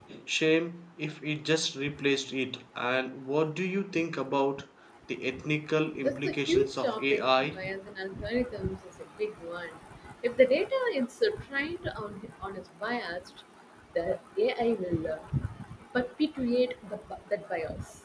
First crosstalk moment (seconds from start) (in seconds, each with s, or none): 6.0 s